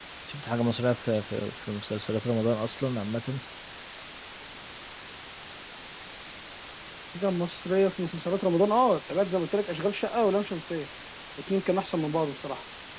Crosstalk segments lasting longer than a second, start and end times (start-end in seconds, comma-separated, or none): none